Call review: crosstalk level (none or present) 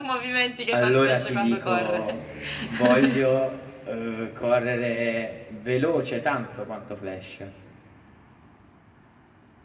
present